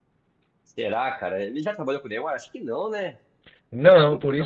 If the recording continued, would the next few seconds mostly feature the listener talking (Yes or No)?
Yes